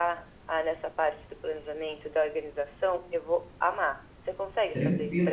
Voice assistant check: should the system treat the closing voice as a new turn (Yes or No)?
Yes